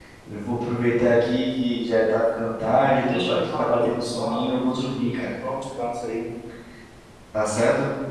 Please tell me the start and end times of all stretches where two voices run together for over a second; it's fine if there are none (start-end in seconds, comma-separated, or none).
3.1-4.8